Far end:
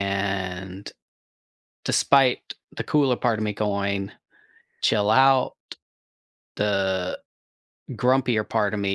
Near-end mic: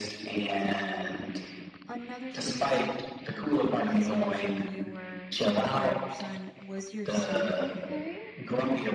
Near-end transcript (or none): another thing, w because you mentioned you were taking care of your son, was your son okay?